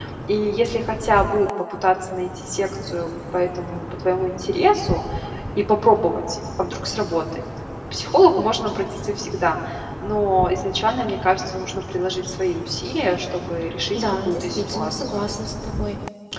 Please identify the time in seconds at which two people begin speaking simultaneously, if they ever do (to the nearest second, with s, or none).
14 s